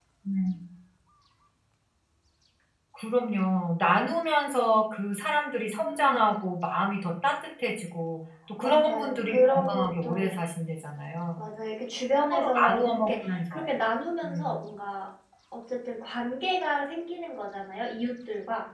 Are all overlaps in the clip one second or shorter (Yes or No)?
No